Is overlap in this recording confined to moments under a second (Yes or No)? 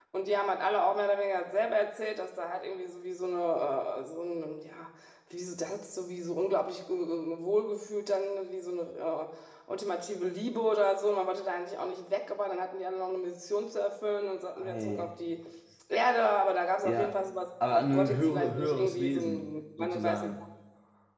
No